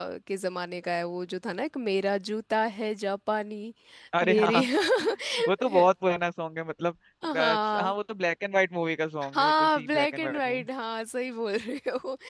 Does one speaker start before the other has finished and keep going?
Yes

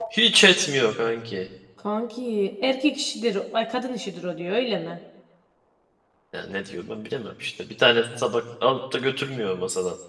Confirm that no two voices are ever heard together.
Yes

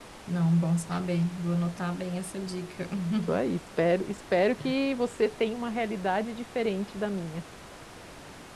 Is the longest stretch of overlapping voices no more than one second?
Yes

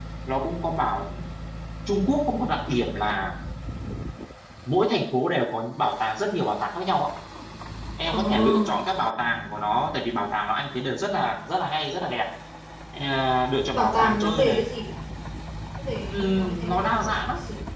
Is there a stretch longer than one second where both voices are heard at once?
Yes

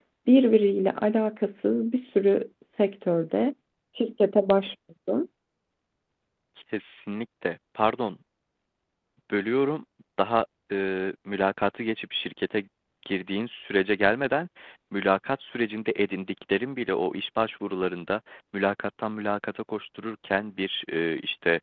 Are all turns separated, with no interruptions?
Yes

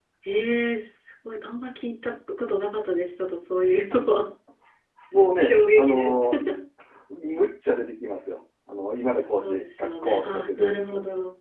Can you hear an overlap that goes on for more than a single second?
Yes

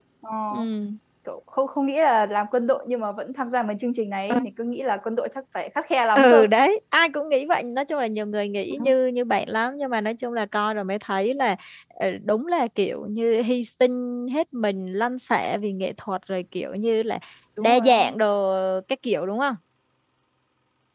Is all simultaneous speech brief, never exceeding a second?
Yes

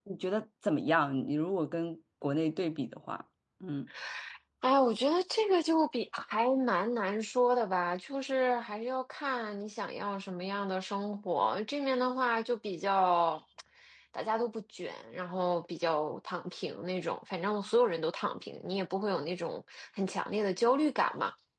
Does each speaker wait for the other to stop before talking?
Yes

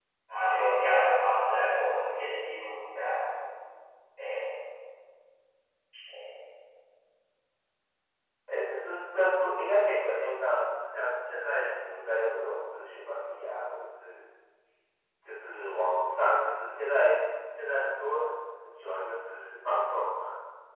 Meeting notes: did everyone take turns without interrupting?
Yes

